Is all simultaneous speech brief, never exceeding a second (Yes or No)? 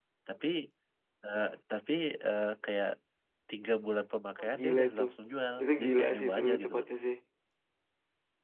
No